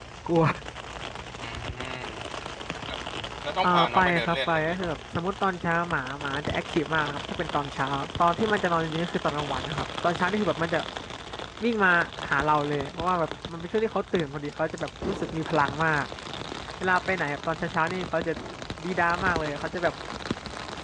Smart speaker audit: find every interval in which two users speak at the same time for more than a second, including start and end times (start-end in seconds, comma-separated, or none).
3.6-5.0